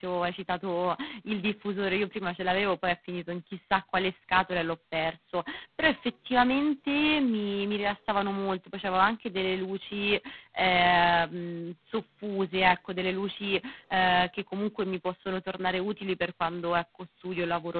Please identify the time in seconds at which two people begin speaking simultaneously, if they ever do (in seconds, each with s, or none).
none